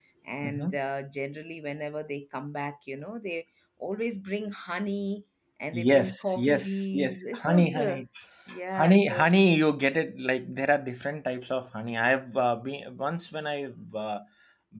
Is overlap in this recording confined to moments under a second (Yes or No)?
No